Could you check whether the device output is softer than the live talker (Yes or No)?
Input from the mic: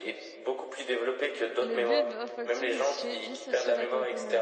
No